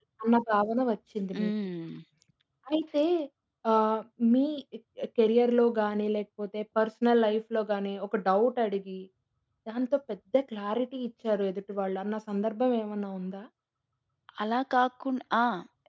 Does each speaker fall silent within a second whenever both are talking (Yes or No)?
Yes